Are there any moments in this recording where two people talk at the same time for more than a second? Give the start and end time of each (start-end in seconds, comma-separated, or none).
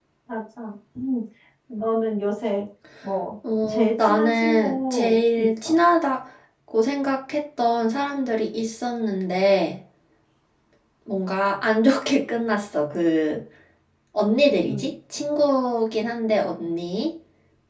3.7-5.8